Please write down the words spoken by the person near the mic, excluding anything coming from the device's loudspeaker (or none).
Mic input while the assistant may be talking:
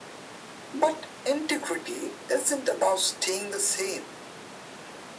none